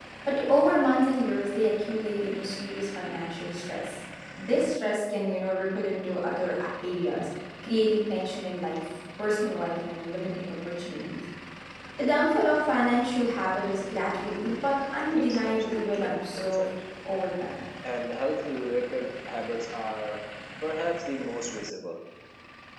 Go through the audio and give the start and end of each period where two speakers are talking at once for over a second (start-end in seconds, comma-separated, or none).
15.1-16.7